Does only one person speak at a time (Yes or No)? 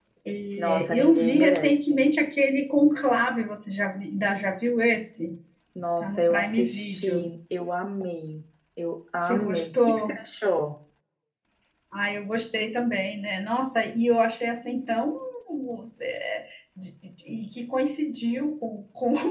No